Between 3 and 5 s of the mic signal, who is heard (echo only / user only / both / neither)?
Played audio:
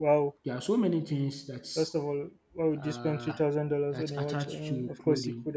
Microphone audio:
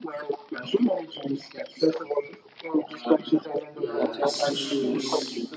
both